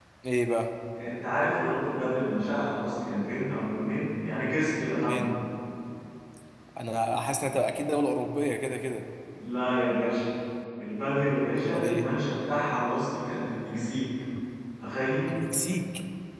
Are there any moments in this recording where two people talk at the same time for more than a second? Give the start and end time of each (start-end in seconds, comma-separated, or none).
none